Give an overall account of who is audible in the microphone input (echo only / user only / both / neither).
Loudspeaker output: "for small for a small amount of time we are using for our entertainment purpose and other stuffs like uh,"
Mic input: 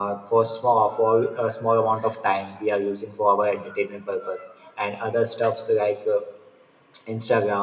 echo only